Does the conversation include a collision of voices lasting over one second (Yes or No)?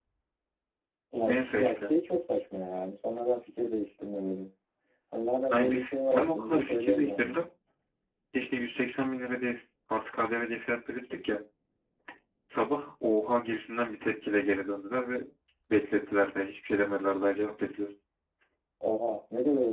Yes